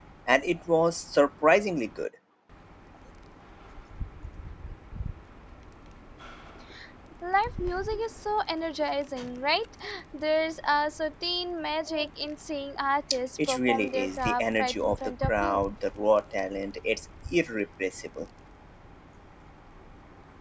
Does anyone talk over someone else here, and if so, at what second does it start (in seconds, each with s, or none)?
13.4 s